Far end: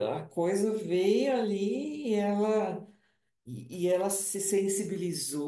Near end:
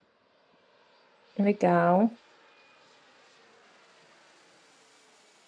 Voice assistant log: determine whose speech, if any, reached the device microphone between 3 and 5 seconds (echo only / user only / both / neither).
neither